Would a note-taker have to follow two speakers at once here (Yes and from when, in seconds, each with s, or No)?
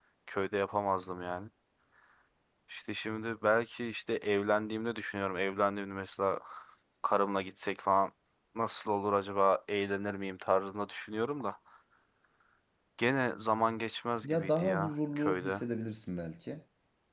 Yes, from 14.2 s